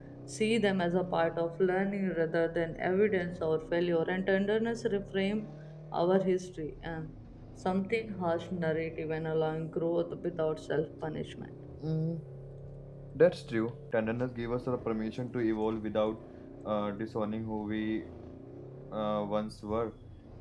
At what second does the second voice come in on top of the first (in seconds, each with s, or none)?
none